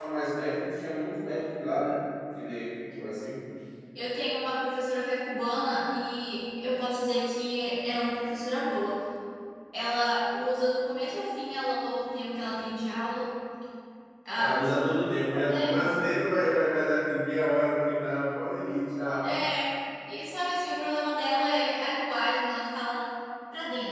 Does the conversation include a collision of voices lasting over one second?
Yes, from 14.4 s

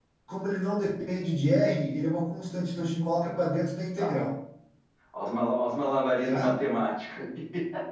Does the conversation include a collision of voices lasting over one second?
No

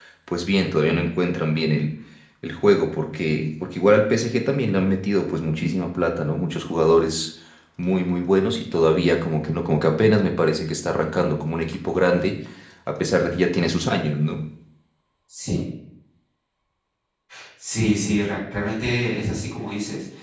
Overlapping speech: No

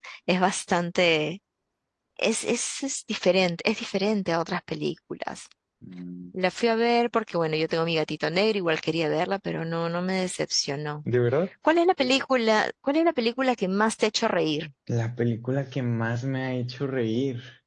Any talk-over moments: No

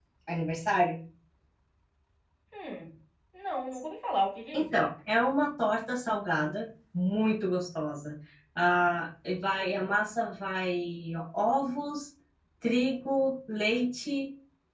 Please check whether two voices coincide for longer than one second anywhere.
No

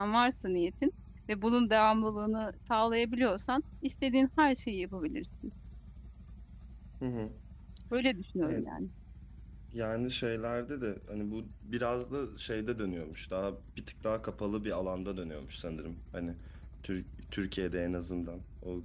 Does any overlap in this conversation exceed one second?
No

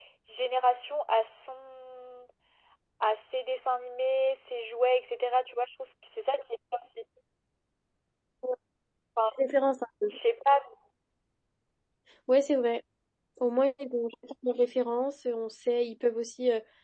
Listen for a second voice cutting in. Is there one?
No

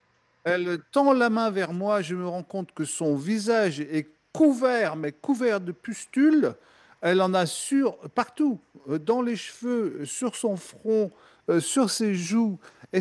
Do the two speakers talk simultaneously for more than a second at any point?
No

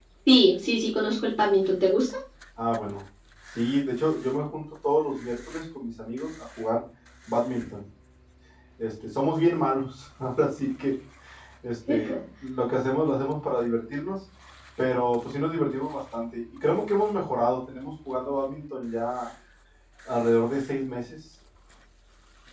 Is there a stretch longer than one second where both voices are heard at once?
No

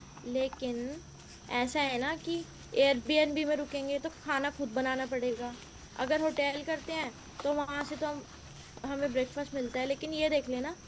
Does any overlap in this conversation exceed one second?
No

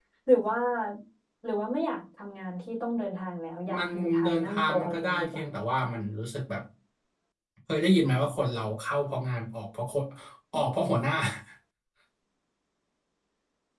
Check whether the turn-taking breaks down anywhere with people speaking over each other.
Yes, from 3.6 s

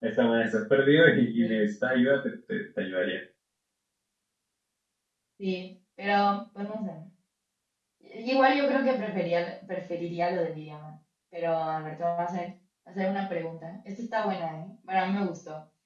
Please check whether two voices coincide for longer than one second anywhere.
No

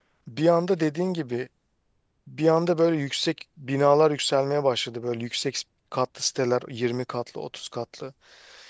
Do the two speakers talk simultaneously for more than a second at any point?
No

